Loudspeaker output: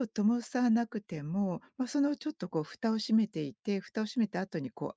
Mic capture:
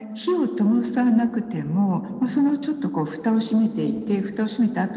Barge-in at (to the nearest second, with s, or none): none